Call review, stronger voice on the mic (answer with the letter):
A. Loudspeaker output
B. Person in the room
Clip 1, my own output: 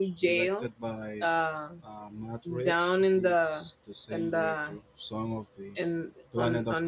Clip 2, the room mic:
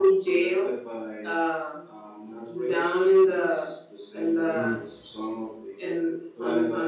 A